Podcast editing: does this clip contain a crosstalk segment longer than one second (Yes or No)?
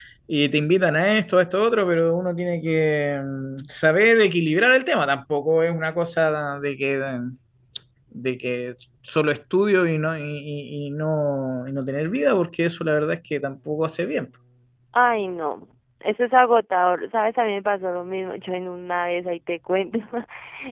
No